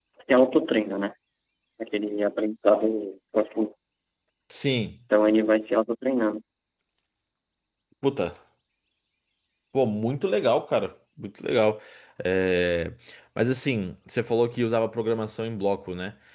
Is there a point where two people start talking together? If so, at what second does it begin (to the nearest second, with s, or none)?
none